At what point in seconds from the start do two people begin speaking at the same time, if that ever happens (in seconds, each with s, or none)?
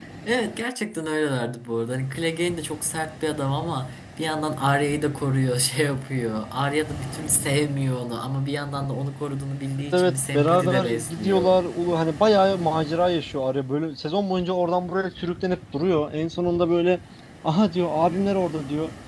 9.9 s